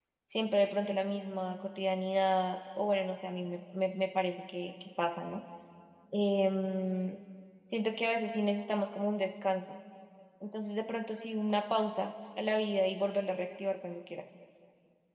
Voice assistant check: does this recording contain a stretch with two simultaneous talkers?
No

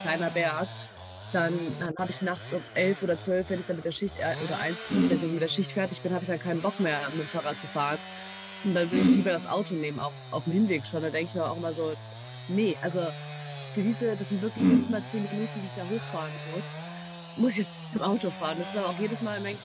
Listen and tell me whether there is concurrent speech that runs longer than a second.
No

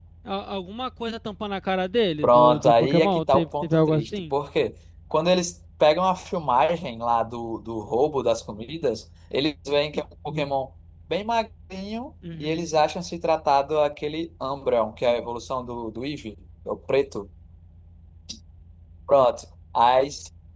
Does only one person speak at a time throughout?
No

